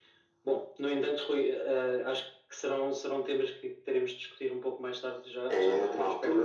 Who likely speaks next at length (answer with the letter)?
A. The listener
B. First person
A